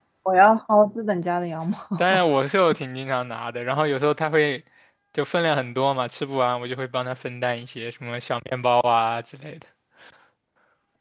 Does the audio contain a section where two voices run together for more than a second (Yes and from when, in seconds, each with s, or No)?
No